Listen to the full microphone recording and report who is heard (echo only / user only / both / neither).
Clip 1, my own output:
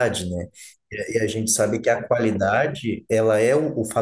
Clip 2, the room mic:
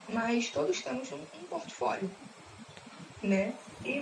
user only